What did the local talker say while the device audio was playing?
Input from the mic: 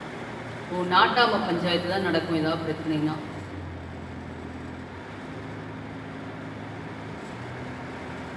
ஓ! நாட்டாம பஞ்சாயத்துதான் நடக்கும், ஏதாவது பிரச்சனைனா!

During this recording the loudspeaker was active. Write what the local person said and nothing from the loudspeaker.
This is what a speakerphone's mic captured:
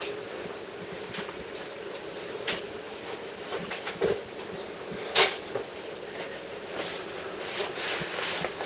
none

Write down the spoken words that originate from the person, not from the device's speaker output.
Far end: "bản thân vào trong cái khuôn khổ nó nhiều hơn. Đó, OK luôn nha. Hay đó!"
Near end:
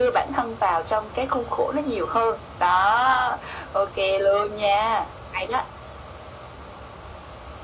none

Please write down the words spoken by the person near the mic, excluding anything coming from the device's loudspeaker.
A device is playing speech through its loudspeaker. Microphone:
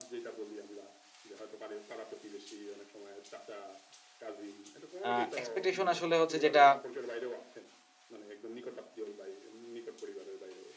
আ expectation আসলে হচ্ছে যেটা

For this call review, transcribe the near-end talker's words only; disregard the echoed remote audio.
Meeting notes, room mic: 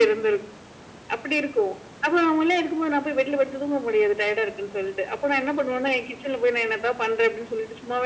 none

